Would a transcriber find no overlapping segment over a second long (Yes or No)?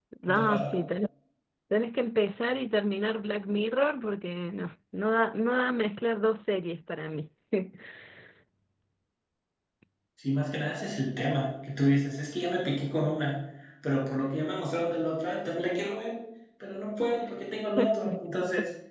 Yes